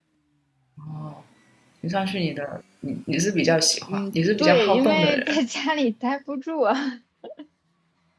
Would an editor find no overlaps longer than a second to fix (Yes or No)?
No